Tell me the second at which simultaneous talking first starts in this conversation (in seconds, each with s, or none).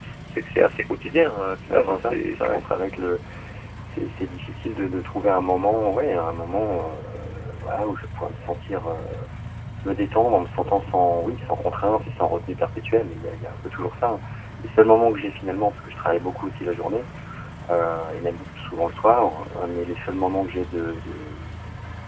1.7 s